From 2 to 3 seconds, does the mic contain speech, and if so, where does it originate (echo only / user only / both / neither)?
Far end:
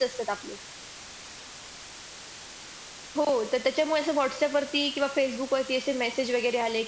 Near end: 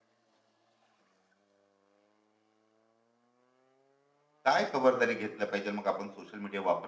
neither